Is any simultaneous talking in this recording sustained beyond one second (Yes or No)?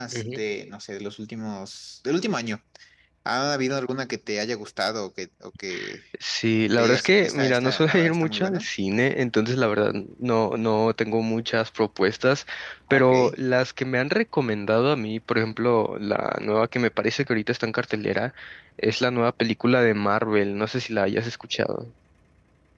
Yes